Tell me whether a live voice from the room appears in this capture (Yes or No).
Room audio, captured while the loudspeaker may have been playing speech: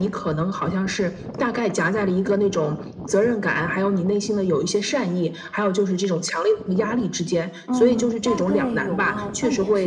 Yes